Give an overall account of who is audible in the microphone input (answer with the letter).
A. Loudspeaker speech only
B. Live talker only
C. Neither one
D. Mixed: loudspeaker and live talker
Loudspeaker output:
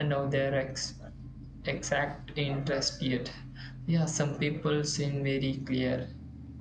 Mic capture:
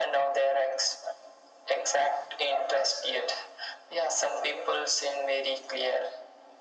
A